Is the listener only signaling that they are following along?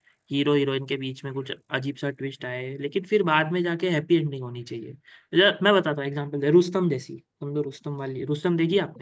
No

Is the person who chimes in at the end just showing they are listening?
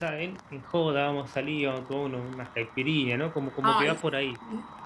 No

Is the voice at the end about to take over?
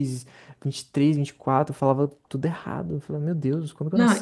Yes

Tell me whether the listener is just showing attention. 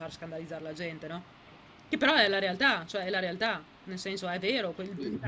Yes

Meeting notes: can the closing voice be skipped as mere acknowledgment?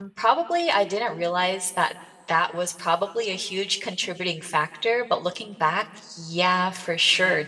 Yes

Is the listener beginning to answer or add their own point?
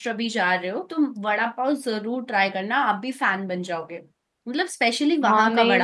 Yes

